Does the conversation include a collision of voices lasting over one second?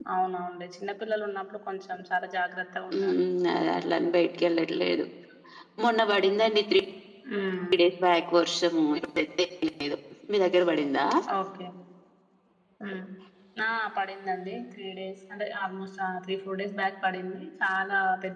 No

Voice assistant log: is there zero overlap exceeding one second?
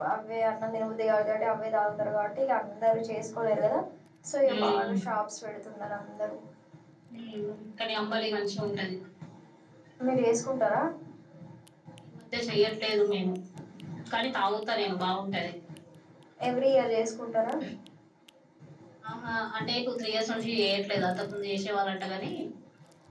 Yes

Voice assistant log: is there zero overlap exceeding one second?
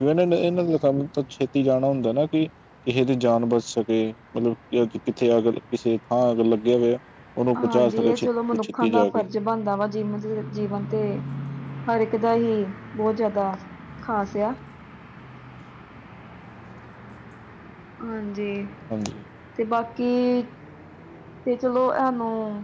No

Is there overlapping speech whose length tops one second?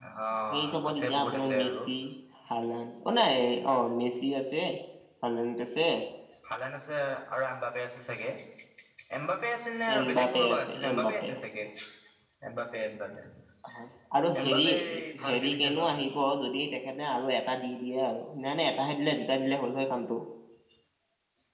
Yes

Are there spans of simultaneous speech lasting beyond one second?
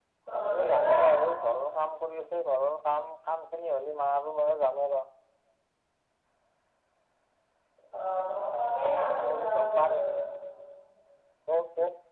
Yes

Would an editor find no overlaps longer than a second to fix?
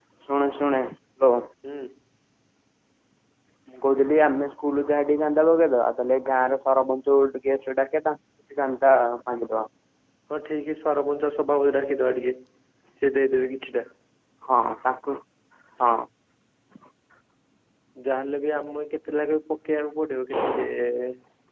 Yes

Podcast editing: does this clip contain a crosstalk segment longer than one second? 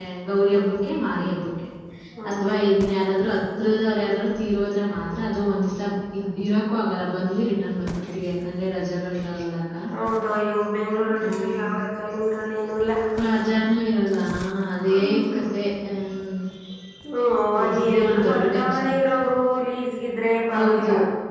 Yes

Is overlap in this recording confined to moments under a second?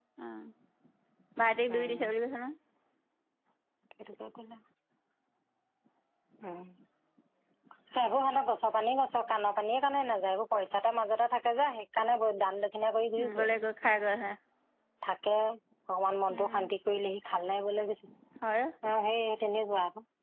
Yes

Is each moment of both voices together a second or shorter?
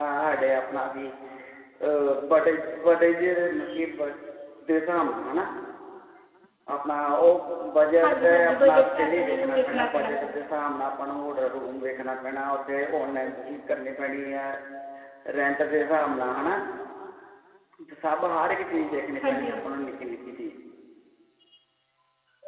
No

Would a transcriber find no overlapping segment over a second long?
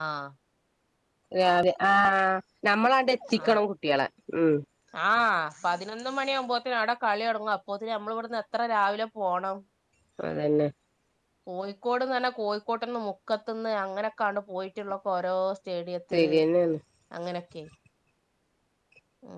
Yes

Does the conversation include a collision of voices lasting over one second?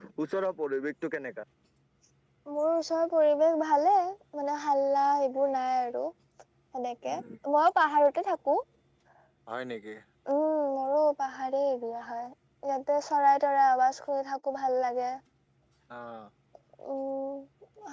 No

